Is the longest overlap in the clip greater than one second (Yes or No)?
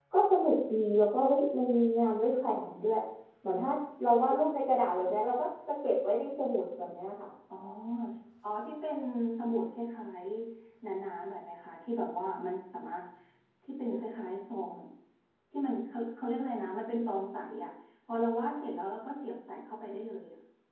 No